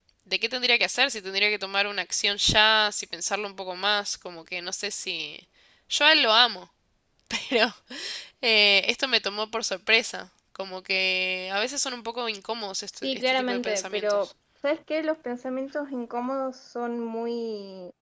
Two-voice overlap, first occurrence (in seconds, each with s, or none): 13.0 s